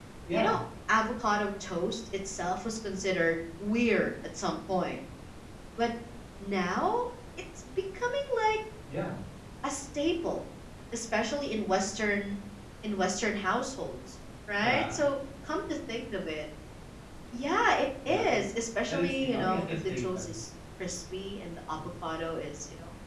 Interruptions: present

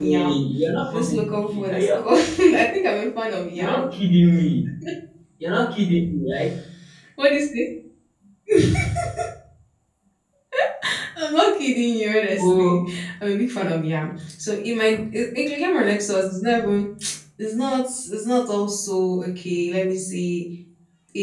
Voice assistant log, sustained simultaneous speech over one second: present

